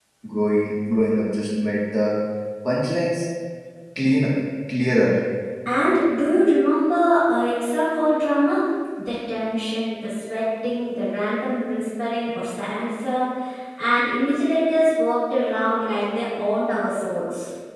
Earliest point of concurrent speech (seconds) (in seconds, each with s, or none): none